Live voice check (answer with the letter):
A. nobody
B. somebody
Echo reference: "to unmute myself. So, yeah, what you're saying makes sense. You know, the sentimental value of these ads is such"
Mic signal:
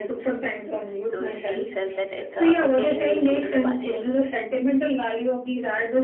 B